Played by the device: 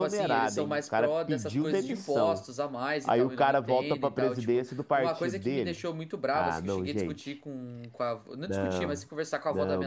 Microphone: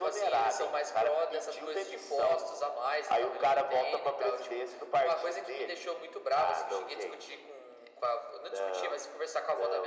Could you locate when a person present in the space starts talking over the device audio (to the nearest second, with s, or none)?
none